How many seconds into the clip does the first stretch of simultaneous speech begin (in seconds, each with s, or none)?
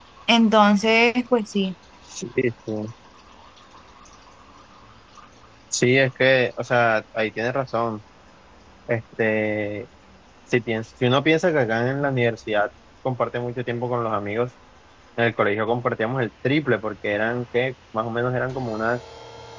none